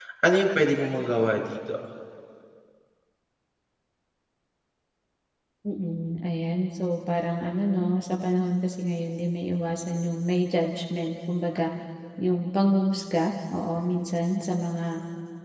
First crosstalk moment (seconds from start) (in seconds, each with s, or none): none